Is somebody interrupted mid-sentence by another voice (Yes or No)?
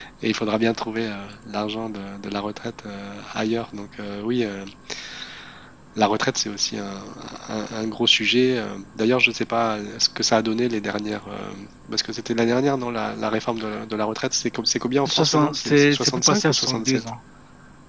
Yes